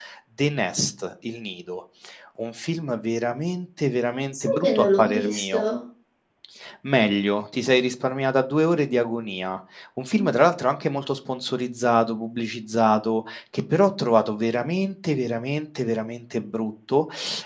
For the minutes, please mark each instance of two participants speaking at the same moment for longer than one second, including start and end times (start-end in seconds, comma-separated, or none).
4.3-5.6